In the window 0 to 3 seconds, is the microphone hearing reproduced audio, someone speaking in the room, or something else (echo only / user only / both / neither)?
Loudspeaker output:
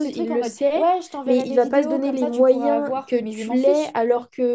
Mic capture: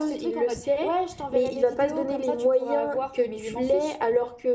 echo only